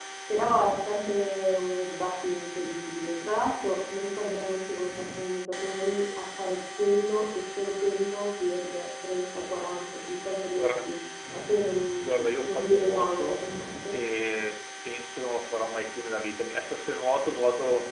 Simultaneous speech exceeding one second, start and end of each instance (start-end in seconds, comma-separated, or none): 12.0-13.4